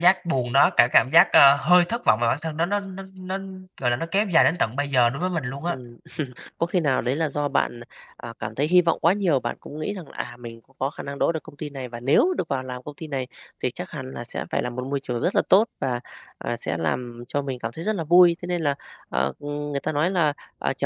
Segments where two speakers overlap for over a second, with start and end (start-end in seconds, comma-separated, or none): none